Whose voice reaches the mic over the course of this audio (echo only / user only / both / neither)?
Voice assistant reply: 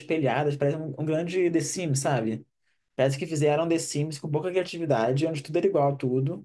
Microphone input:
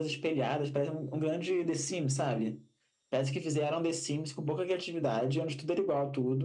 echo only